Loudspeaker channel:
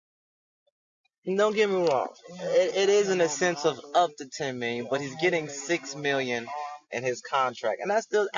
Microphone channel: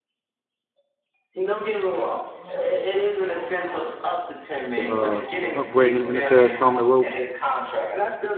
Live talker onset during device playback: 4.7 s

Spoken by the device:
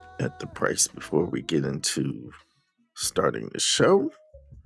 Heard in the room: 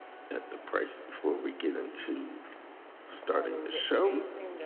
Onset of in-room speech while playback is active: 3.3 s

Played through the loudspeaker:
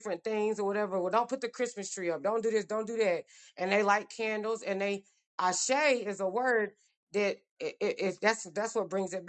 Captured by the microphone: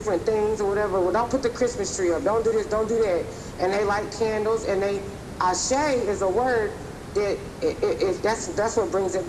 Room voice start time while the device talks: none

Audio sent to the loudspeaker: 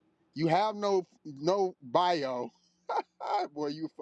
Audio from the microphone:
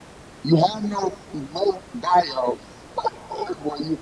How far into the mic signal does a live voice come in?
none

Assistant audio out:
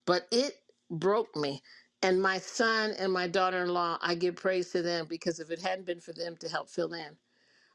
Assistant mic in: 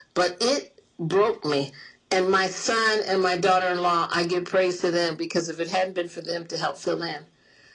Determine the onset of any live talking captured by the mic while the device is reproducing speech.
none

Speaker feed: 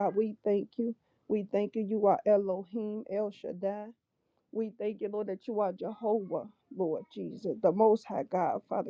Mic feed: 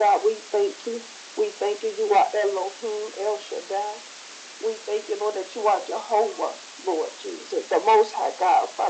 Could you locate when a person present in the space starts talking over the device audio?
none

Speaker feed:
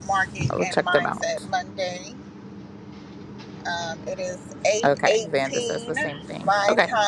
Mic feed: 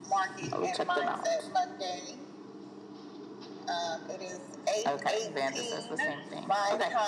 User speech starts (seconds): none

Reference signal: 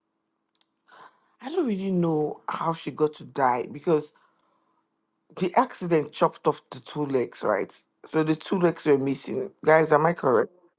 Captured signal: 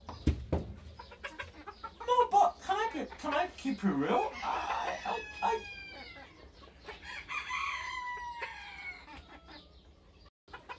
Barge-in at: 2.1 s

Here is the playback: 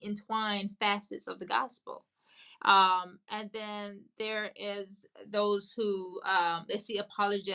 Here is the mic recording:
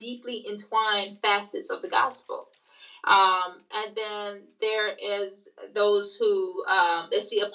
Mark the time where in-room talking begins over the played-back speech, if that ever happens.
none

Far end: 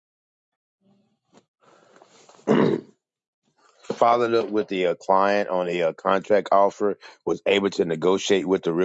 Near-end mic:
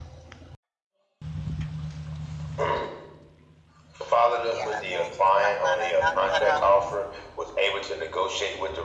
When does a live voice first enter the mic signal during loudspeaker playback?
4.5 s

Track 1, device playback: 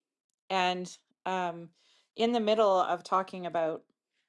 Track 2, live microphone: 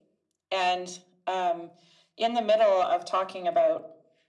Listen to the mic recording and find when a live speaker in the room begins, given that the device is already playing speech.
none

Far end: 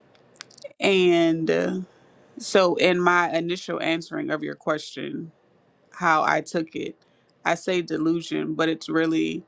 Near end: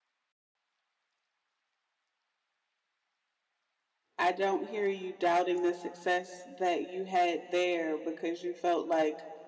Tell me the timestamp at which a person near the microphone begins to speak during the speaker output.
4.2 s

